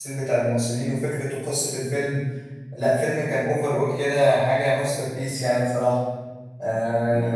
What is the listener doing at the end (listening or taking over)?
taking over